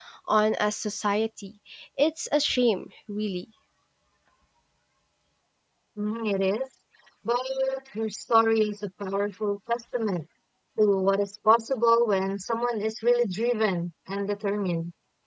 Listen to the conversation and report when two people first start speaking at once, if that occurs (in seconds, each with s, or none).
none